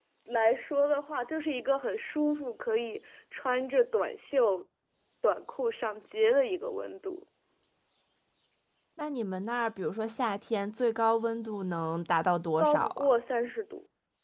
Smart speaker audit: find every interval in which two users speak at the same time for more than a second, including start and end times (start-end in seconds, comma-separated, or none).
none